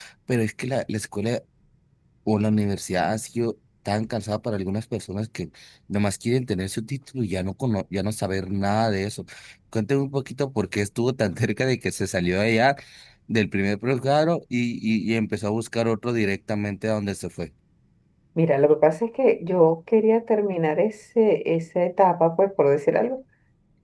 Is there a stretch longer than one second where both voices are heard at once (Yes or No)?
No